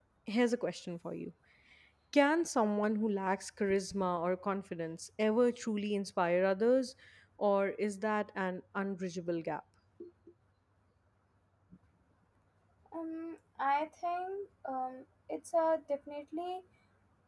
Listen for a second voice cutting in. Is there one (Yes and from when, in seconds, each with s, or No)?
No